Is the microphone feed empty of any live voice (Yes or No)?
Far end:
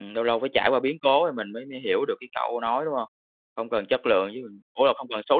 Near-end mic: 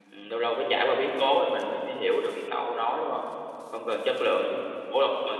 Yes